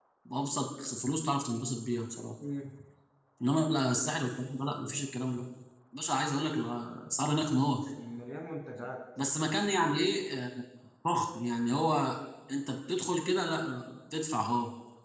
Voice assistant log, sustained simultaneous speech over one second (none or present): none